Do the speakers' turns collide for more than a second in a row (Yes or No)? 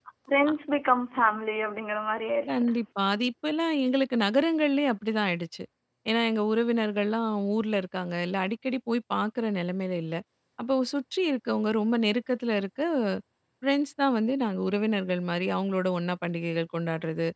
No